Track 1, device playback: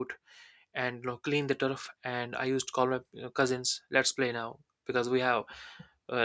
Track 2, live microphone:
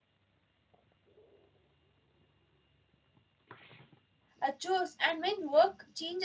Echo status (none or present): none